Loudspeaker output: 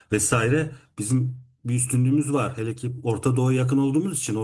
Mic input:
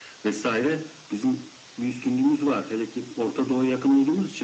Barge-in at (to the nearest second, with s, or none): none